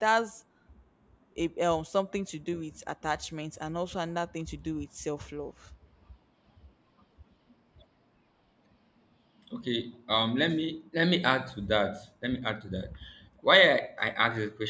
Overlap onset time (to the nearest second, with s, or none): none